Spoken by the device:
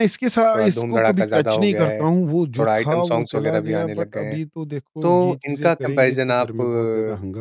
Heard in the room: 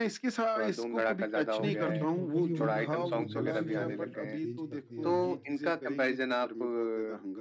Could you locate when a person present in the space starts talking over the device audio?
2 s

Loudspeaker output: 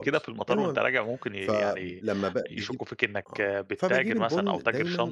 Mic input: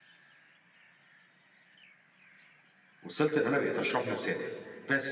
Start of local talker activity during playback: 3 s

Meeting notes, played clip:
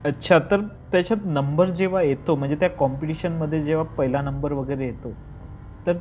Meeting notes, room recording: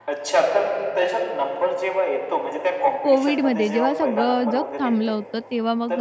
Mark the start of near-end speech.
3 s

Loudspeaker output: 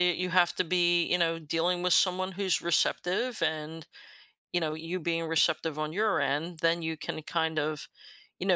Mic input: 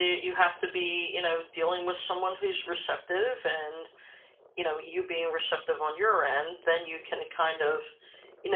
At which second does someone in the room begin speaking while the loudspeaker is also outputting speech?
none

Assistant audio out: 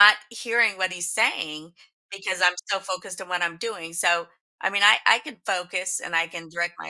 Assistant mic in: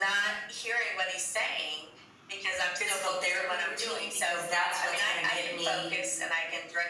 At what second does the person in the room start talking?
3 s

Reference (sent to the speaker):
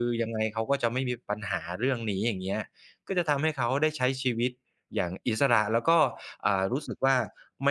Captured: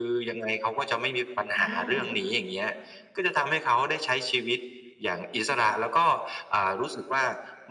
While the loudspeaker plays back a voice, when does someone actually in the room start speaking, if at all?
2 s

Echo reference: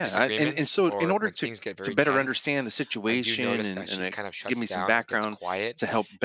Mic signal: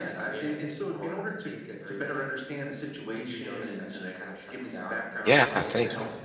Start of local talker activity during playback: 5 s

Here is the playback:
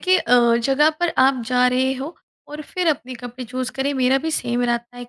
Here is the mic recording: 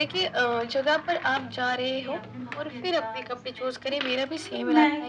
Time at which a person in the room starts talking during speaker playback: 2 s

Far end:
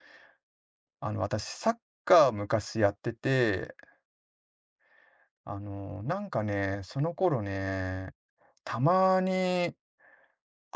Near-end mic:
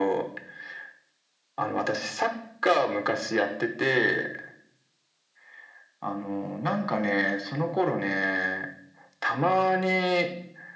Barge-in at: none

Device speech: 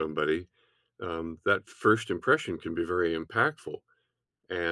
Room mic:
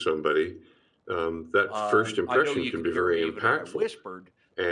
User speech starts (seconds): 2 s

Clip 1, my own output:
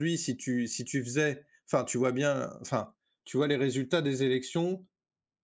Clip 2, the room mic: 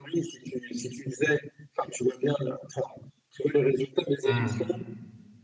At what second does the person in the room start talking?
4 s

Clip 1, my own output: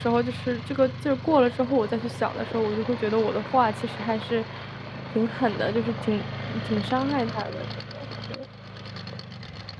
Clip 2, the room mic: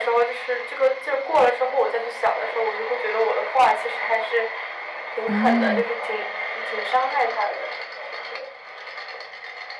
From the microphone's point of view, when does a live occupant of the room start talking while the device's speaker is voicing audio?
5 s

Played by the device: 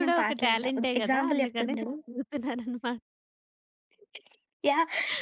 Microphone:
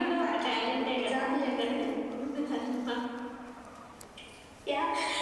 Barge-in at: none

